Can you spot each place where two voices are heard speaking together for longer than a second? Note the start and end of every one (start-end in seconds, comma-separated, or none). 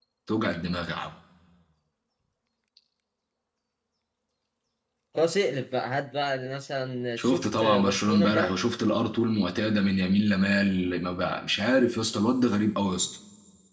7.2-8.6